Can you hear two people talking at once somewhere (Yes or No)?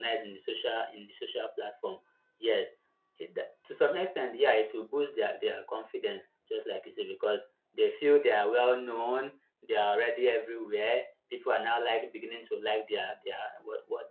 No